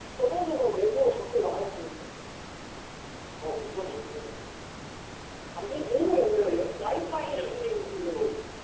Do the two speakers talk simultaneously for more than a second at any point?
Yes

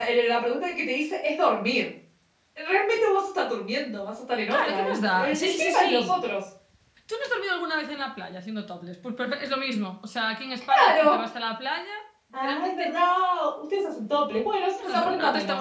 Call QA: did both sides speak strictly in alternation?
No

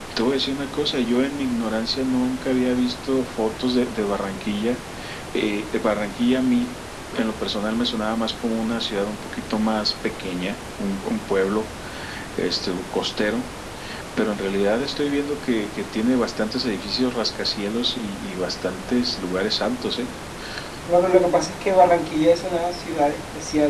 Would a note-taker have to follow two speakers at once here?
No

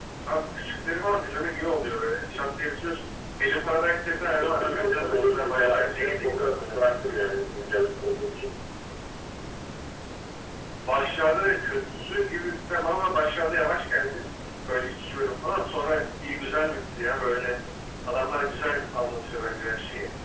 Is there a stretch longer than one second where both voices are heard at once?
Yes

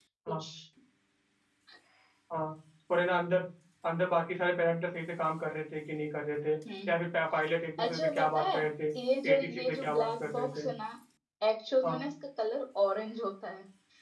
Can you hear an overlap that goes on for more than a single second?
Yes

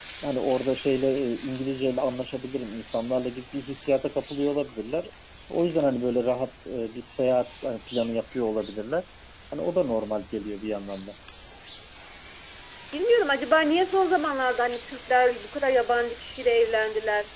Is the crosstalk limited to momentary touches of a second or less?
Yes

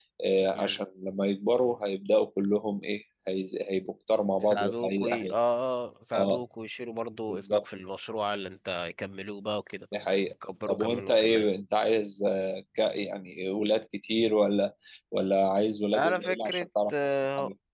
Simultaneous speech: Yes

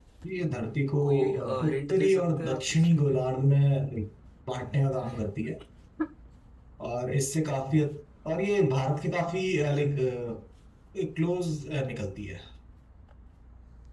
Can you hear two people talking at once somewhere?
Yes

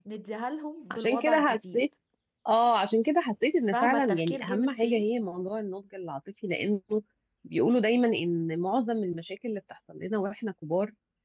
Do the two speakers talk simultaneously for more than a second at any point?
Yes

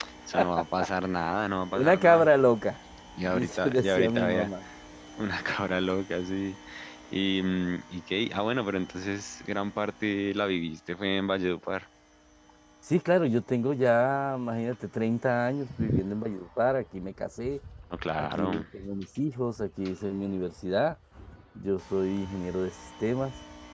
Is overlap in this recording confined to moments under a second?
No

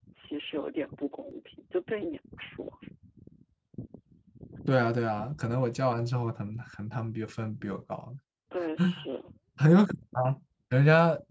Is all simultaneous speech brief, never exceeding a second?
Yes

